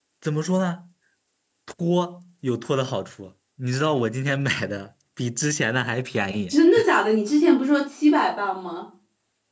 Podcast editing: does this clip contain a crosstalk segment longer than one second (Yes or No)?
No